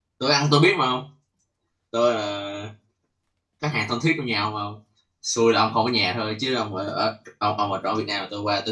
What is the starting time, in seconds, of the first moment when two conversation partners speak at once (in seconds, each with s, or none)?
none